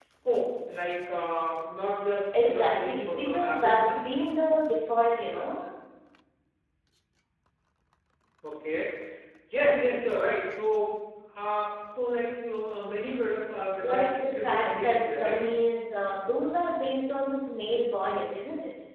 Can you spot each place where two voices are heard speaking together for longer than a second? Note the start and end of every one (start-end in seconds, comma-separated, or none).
2.4-4.0, 13.8-15.4